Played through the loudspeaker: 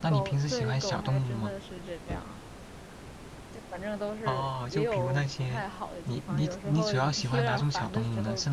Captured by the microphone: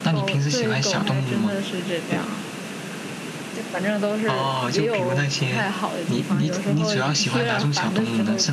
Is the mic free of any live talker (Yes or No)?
Yes